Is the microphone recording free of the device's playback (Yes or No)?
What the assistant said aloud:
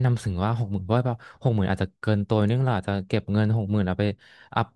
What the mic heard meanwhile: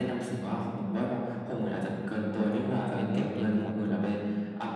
No